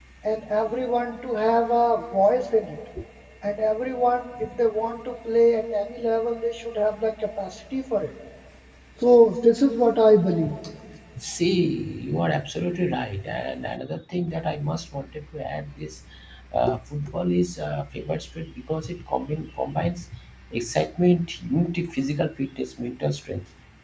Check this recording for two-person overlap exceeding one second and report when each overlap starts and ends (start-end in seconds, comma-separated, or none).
none